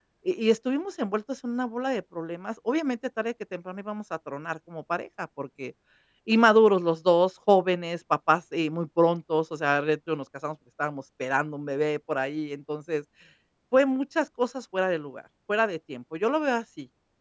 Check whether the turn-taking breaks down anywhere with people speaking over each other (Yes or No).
No